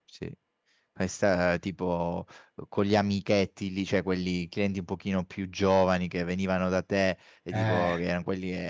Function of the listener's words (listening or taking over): listening